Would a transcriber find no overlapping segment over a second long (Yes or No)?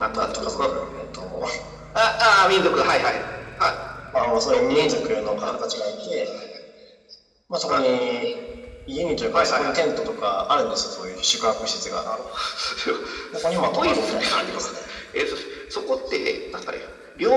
No